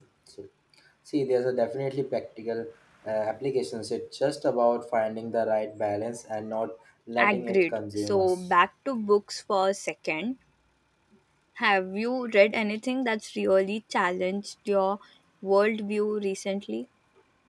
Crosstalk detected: Yes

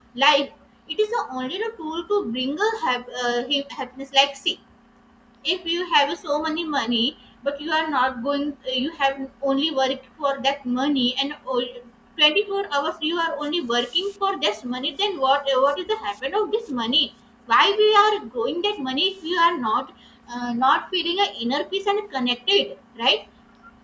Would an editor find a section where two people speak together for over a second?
No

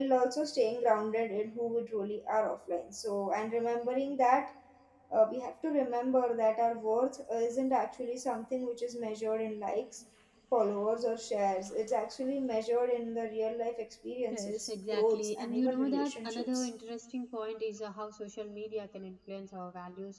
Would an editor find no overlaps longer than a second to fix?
No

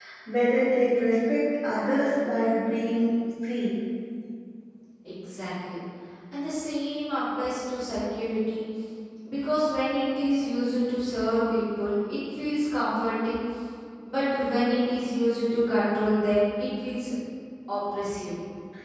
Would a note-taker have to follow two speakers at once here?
No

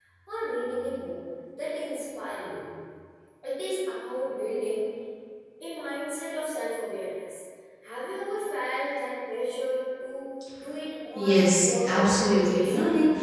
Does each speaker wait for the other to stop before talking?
No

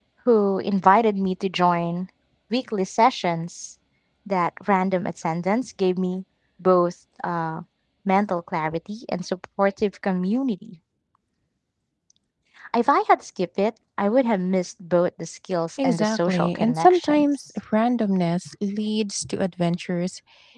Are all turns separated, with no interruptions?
No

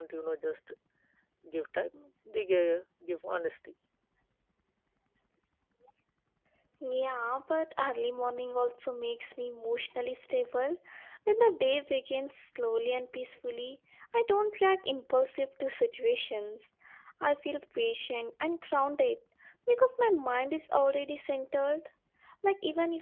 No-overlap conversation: Yes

